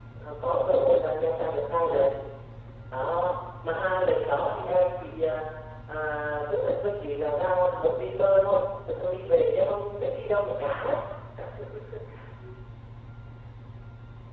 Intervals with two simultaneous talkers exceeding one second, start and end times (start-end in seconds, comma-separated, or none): none